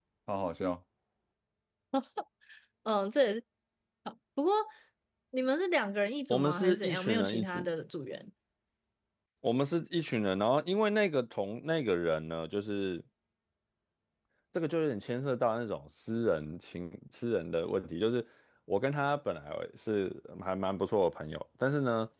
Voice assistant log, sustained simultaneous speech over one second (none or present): present